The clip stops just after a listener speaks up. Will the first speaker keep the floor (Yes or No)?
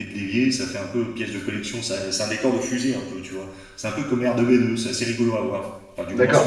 No